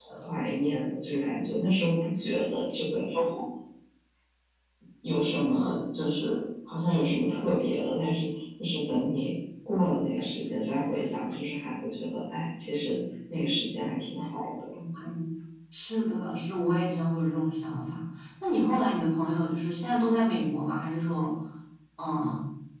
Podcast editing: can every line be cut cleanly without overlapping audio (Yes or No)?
Yes